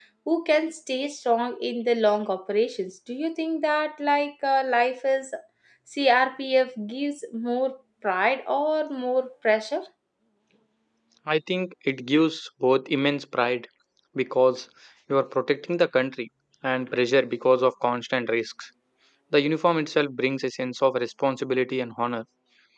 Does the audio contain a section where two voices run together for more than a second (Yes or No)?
No